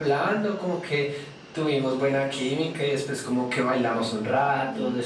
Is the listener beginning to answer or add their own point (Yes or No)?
No